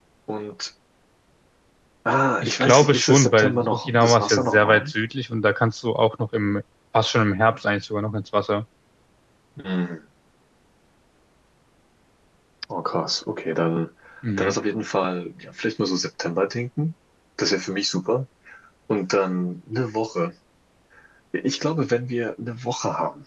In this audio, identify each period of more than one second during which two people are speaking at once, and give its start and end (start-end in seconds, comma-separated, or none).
2.4-4.9